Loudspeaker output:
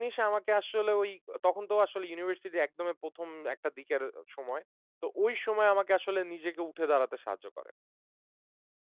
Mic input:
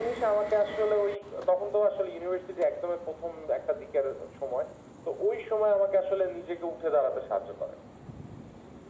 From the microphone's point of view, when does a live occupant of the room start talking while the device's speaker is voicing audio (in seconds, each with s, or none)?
none